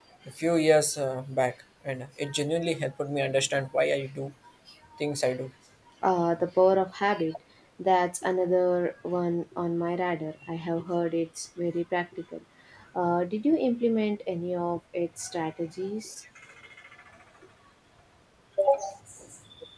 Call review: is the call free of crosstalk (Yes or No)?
Yes